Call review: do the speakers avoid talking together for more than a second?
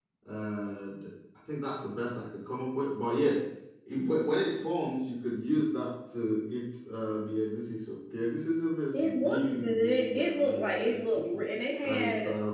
No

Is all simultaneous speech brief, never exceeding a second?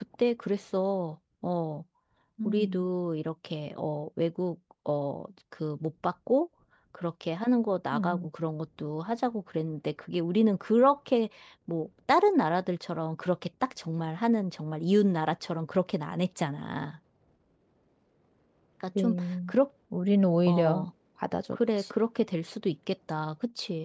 Yes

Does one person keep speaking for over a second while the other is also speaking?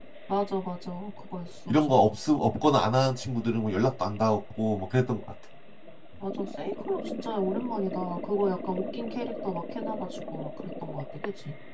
No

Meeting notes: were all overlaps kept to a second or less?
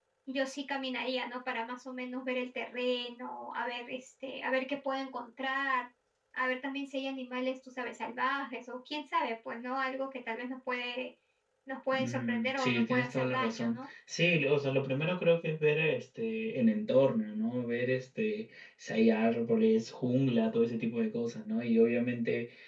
No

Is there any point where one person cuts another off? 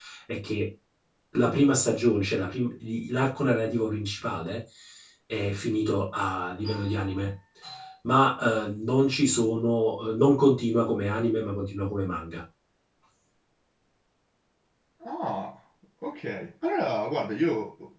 No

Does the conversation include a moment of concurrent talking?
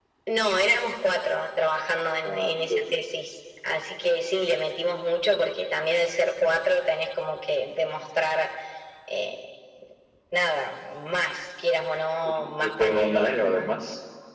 Yes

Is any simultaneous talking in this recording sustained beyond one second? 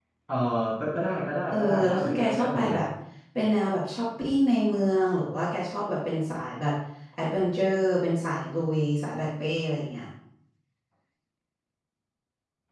Yes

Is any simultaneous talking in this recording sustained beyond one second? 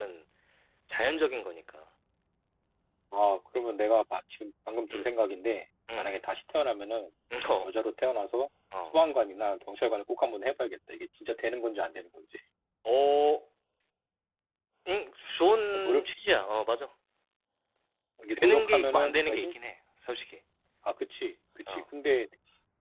Yes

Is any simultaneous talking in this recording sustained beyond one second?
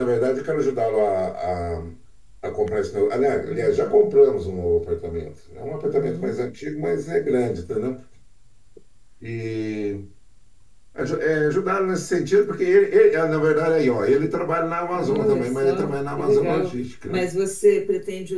Yes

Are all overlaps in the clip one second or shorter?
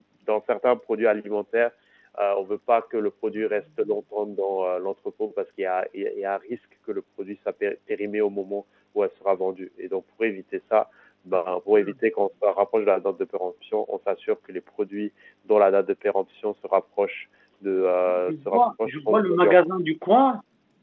No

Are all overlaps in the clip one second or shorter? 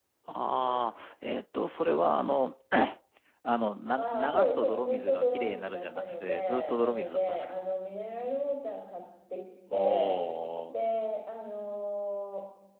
No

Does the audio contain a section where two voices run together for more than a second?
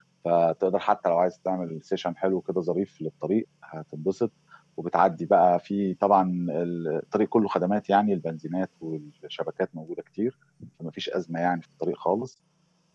No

